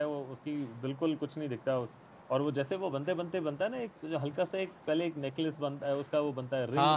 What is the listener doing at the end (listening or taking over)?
taking over